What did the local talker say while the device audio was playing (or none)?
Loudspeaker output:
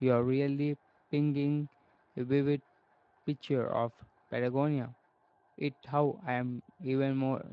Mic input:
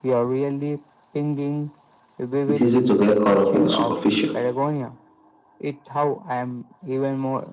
It's easy to get caught up in the superficial.